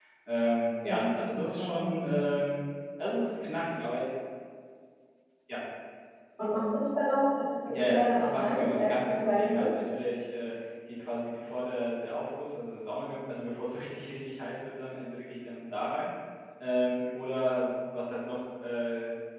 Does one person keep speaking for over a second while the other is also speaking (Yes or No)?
Yes